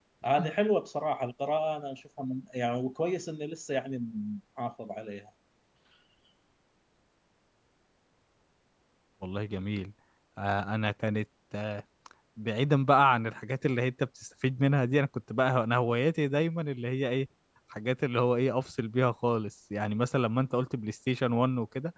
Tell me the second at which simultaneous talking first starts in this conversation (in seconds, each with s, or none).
none